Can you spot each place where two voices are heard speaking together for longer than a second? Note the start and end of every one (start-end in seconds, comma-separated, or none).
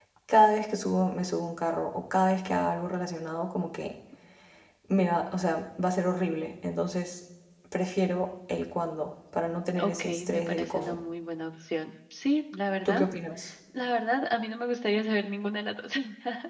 9.8-11.0